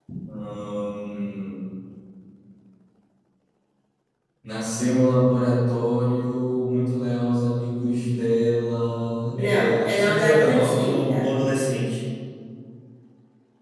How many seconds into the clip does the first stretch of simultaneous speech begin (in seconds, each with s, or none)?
9.3 s